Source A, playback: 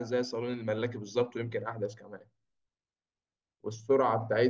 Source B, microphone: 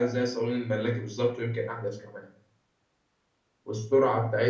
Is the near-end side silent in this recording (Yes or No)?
Yes